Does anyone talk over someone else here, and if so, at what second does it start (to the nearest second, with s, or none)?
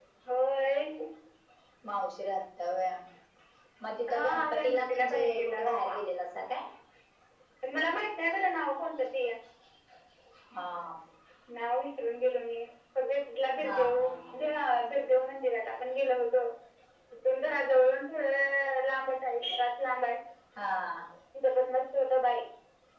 4 s